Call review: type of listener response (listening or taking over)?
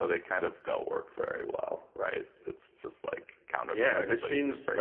taking over